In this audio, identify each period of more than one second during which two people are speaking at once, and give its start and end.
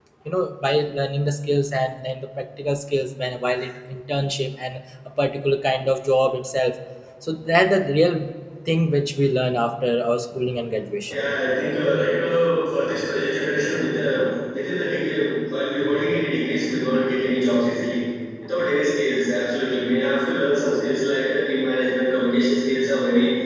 none

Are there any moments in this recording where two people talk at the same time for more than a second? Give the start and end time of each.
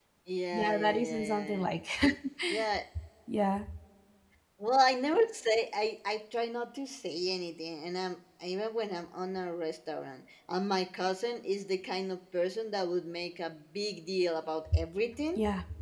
0.5-1.7

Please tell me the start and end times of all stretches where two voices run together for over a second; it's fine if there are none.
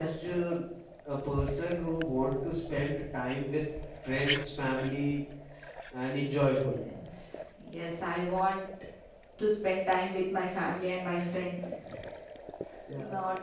none

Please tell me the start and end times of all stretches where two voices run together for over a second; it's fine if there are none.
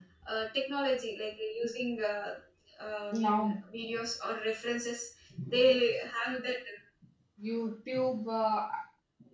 none

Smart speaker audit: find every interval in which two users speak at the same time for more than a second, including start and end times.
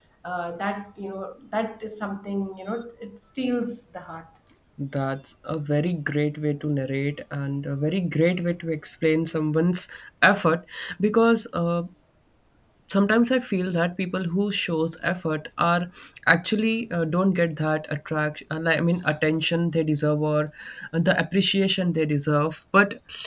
none

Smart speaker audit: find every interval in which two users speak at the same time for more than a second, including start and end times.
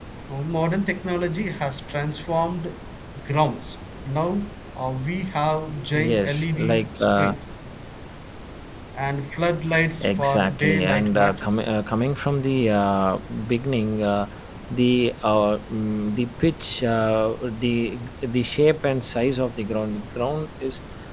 5.9-7.3, 10.0-11.7

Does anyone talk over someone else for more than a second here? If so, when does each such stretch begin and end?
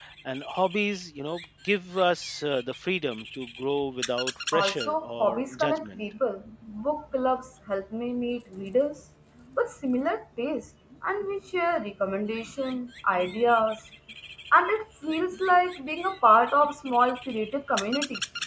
4.5-6.0

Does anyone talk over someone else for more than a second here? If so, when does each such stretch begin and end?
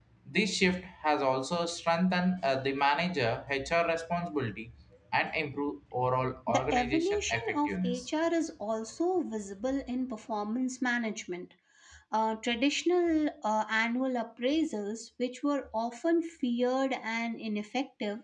6.5-8.1

